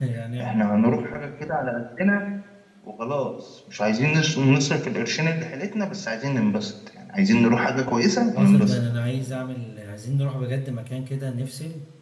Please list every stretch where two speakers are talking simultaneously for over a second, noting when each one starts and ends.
none

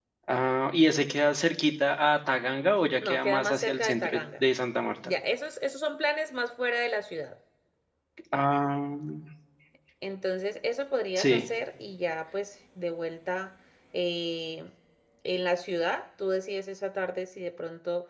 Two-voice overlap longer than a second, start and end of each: 3.0-4.4

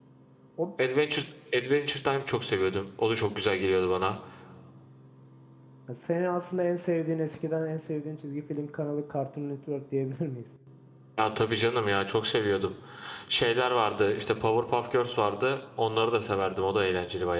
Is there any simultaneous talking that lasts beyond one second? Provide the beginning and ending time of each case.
none

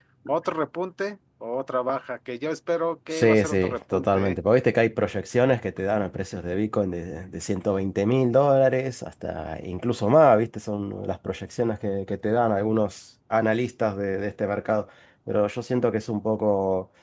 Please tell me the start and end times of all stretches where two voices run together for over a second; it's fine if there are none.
3.1-4.4

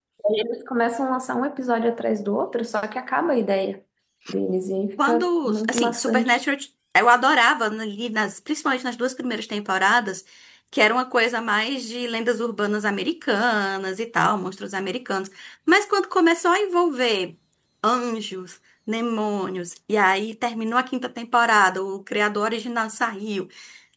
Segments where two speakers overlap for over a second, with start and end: 5.0-6.4

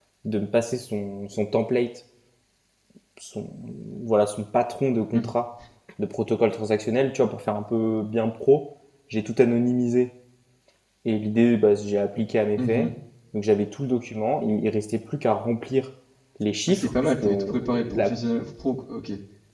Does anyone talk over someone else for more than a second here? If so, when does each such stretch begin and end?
16.7-18.1

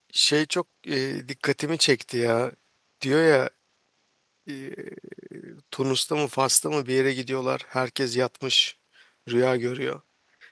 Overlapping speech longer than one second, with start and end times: none

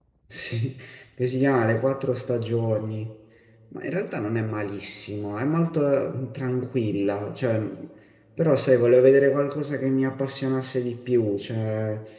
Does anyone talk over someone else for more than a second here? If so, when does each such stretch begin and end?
none

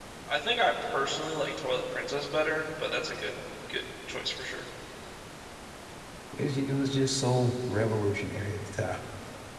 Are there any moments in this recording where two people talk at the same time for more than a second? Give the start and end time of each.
none

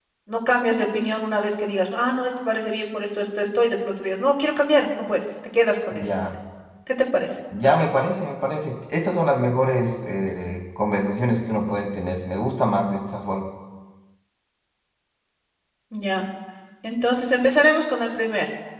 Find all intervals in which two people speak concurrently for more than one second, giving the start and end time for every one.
none

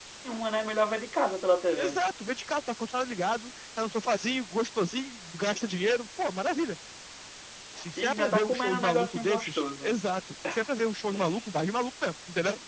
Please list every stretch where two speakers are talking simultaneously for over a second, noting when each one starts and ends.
8.0-10.0

